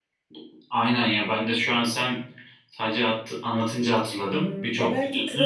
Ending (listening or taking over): taking over